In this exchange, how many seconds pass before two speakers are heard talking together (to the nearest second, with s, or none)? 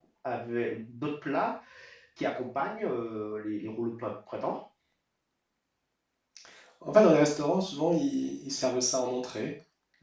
none